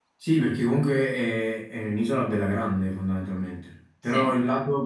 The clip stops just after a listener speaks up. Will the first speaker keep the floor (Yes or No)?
Yes